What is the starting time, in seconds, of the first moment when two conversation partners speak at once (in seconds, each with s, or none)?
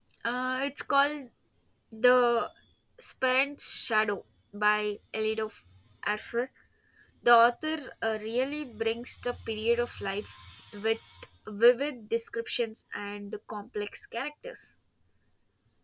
none